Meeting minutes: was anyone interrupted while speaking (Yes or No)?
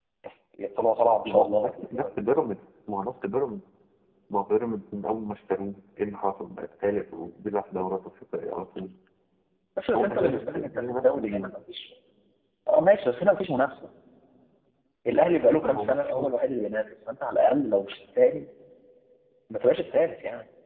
Yes